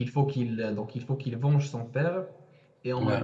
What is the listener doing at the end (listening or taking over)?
listening